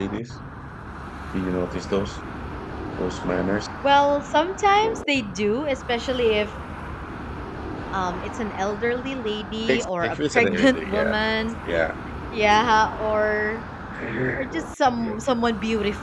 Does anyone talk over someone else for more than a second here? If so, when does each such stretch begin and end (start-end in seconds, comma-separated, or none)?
9.7-11.1